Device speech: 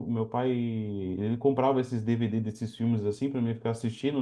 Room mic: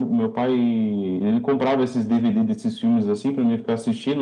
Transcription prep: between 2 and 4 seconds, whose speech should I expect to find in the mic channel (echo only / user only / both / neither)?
echo only